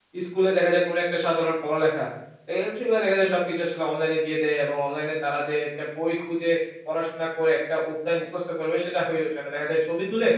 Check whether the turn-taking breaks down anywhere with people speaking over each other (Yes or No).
No